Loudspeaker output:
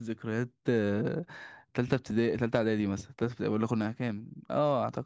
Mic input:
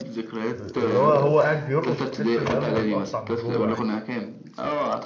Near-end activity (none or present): present